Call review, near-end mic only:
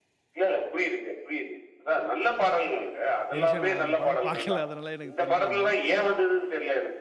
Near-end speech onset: 3 s

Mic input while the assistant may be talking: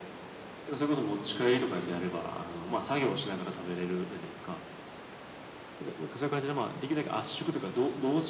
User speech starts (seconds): none

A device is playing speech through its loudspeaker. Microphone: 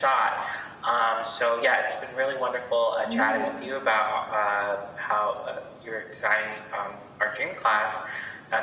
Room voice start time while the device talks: 3 s

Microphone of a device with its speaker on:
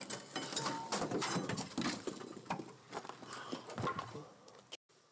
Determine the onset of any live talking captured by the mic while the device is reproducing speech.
none

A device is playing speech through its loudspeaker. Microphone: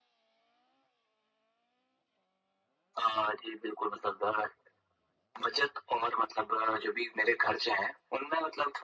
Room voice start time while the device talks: none

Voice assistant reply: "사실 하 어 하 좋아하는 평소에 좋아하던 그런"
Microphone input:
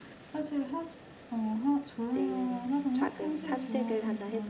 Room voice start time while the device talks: 2 s

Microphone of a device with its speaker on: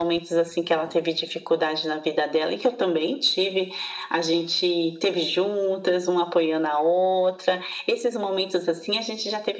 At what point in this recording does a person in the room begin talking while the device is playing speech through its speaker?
none

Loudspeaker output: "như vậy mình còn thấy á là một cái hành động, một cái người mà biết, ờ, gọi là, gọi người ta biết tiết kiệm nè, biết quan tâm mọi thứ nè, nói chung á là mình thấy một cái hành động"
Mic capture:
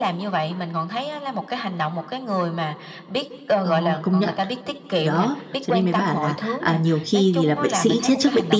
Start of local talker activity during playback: 4 s

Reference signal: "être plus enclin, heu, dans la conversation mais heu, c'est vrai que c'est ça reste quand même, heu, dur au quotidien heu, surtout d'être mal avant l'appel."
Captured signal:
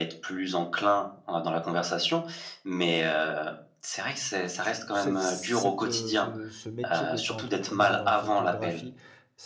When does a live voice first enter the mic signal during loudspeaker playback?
5 s

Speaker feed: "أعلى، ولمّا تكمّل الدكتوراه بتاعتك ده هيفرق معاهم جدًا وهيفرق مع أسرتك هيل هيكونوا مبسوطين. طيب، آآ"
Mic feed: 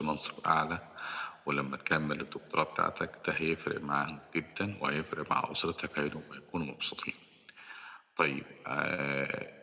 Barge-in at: none

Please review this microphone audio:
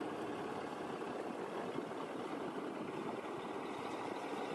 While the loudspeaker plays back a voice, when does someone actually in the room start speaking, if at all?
none

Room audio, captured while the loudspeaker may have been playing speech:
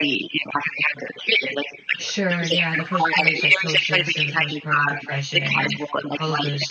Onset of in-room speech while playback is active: 2 s

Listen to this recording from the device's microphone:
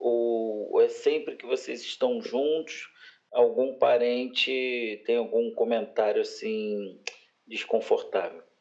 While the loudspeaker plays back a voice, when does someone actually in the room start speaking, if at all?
none

